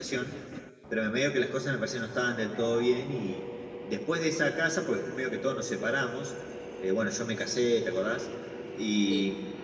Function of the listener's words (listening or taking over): listening